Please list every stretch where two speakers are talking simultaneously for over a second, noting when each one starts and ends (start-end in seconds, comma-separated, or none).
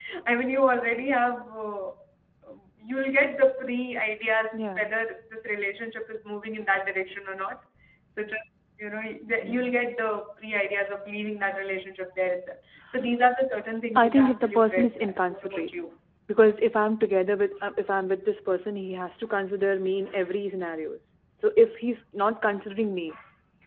13.9-15.7